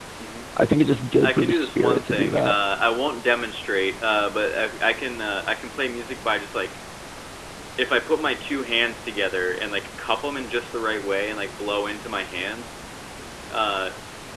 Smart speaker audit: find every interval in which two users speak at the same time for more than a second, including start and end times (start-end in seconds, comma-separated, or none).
1.2-2.6